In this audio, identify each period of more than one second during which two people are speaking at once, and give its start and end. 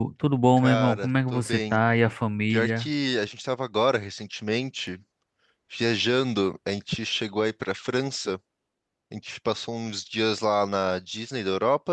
0.6-1.8

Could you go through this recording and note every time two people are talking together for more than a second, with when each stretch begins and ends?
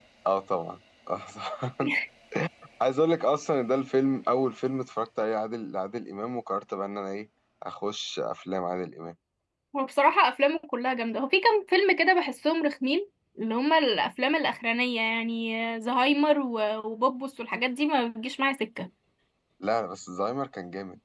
none

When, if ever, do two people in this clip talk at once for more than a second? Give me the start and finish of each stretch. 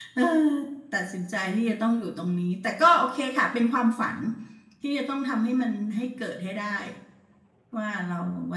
none

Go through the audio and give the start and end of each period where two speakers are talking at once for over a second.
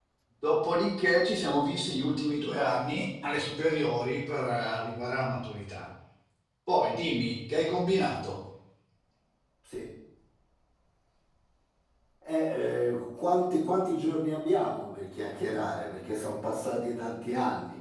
none

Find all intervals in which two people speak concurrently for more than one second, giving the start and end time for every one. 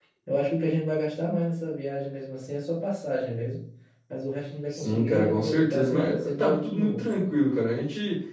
4.7-7.1

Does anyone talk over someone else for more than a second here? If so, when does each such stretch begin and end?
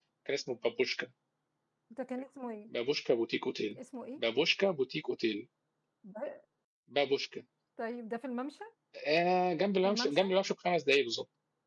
none

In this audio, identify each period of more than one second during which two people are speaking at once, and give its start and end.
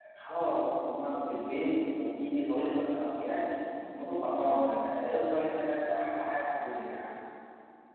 none

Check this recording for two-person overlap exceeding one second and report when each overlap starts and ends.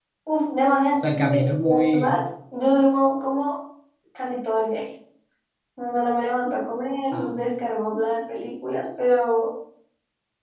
1.0-2.2

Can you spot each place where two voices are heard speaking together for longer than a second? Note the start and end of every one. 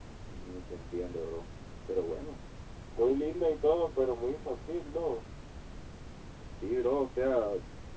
none

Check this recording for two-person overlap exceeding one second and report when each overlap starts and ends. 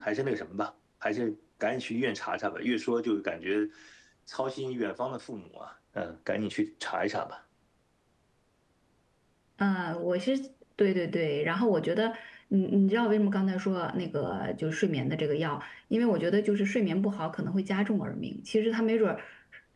none

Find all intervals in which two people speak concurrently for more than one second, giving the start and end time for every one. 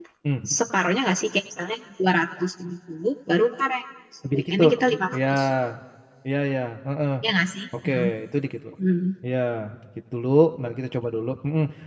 none

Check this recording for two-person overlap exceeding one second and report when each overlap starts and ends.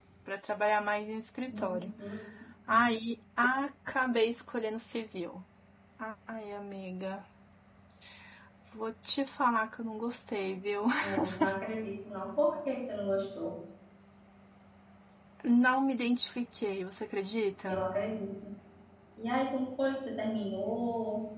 none

